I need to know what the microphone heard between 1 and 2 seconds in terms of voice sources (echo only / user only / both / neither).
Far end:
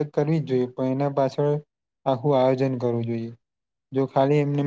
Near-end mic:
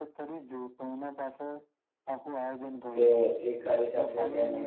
echo only